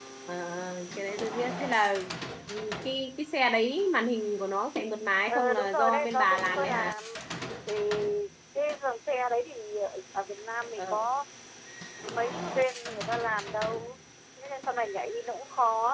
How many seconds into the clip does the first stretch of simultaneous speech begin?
5 s

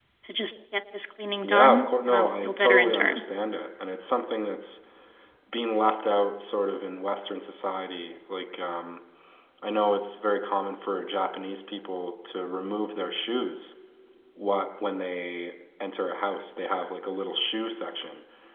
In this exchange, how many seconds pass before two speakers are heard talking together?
1 s

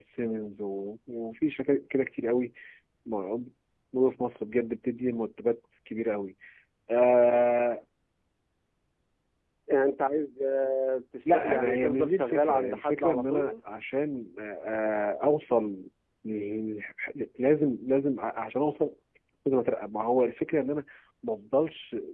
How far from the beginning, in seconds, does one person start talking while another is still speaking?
11 s

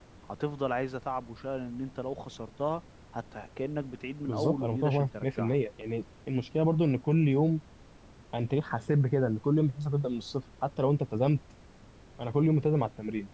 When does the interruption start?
4 s

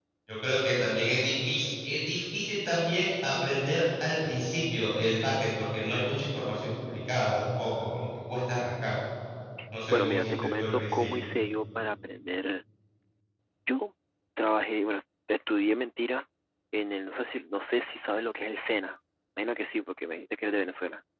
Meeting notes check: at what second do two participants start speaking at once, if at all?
10 s

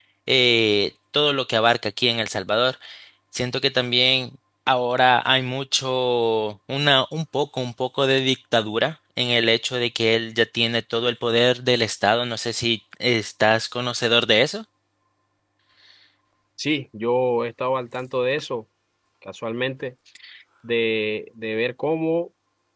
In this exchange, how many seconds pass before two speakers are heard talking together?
none

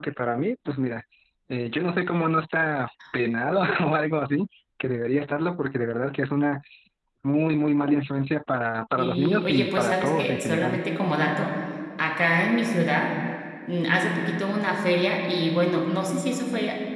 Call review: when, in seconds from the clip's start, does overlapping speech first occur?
9 s

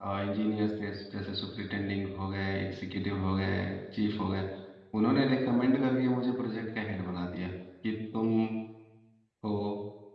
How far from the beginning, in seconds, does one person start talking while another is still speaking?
none

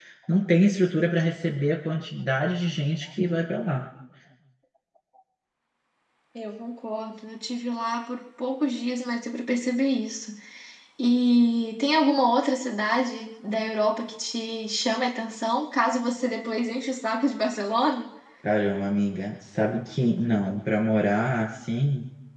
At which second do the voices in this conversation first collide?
none

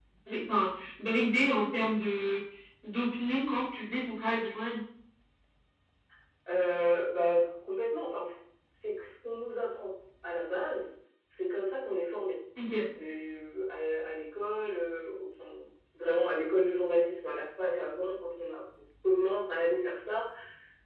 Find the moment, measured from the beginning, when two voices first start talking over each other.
none

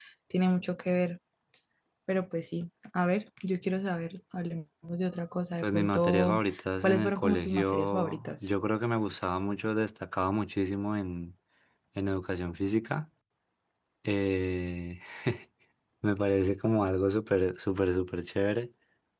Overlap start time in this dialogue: 6 s

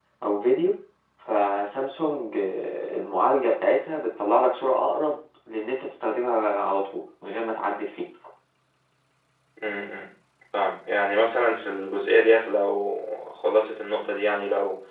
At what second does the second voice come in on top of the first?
none

